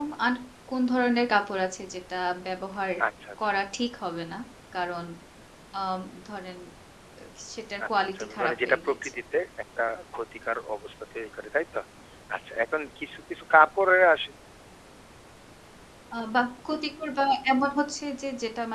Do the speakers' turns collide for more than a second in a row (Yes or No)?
Yes